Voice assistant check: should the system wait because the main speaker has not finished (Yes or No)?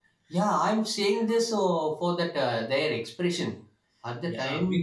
No